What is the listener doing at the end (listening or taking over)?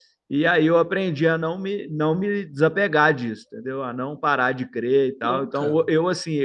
listening